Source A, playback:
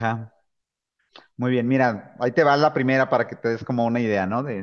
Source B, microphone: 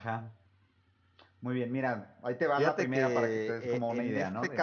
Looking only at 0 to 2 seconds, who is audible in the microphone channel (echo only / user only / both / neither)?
echo only